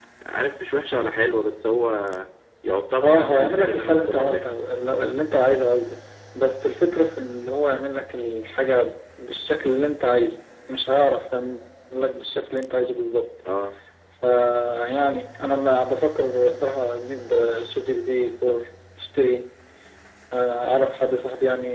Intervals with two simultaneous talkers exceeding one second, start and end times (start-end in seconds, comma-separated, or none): 3.0-4.4